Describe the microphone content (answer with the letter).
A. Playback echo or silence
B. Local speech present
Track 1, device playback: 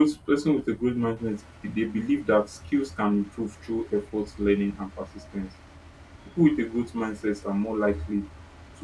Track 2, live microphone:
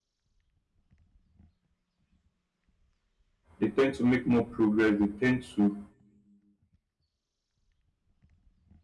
B